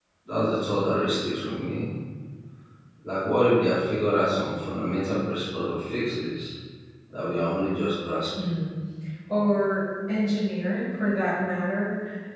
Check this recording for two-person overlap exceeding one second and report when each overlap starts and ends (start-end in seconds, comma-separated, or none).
none